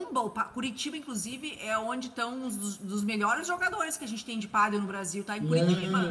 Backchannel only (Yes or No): No